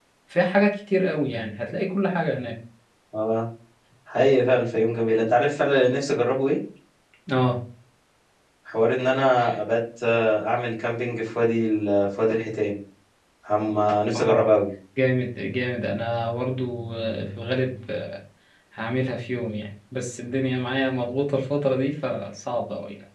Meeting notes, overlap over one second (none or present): none